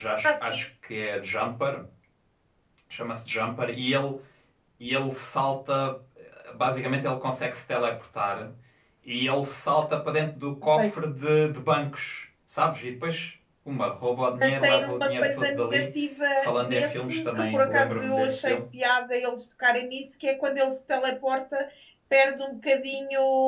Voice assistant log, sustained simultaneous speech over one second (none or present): present